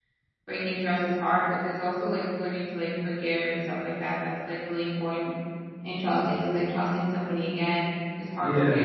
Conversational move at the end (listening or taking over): taking over